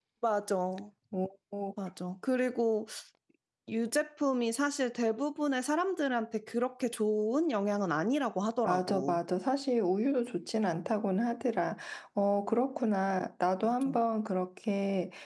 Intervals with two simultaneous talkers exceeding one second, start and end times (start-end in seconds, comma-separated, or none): none